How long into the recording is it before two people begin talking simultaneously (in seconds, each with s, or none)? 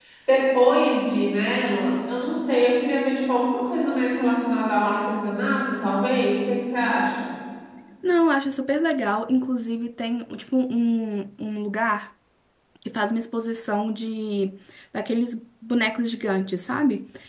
none